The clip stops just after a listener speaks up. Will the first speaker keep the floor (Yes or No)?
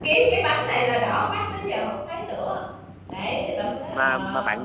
No